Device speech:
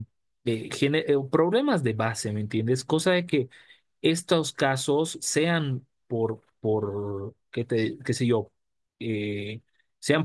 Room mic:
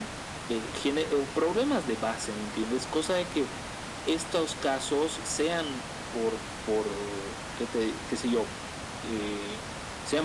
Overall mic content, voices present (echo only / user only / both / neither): echo only